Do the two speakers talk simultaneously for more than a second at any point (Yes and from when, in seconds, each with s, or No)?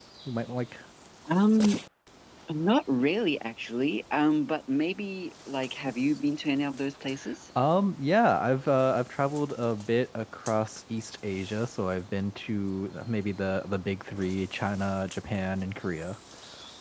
No